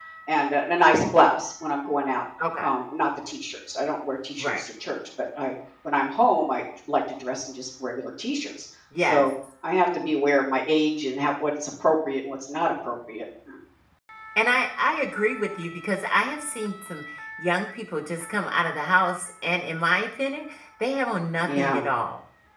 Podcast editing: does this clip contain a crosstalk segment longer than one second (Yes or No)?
No